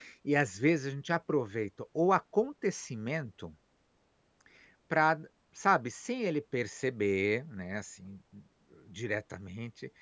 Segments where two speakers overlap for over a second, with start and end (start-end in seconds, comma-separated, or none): none